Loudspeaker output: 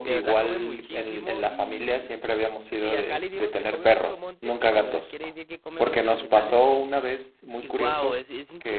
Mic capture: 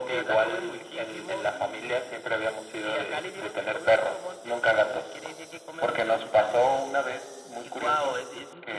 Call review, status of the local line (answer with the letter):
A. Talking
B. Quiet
B